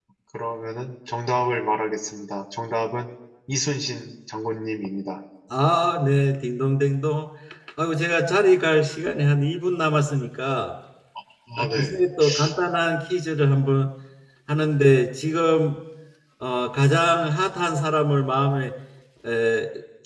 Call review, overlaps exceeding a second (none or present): none